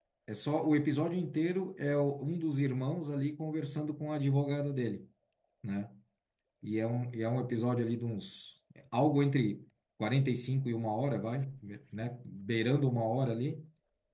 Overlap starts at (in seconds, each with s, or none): none